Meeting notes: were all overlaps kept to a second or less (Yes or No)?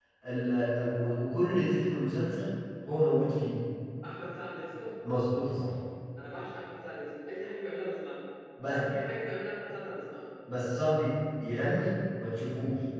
Yes